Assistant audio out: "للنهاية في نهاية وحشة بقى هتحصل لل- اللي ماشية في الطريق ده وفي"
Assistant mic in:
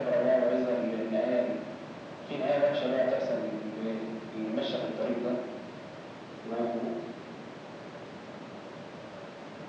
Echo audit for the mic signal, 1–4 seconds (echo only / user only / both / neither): echo only